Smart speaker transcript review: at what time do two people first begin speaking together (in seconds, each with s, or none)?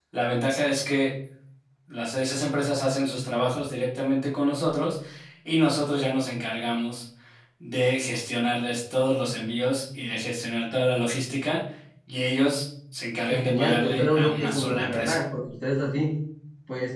13.3 s